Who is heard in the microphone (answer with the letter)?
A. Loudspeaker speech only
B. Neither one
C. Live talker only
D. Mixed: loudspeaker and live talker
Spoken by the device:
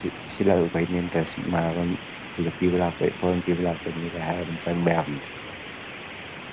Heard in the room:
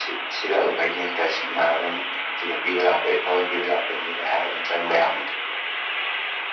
A